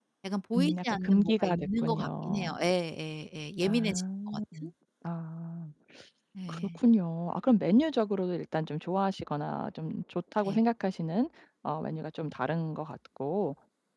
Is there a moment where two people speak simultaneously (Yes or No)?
Yes